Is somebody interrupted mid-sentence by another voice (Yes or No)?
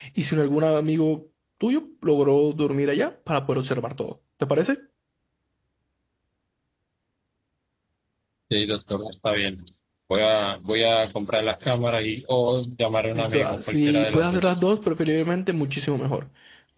Yes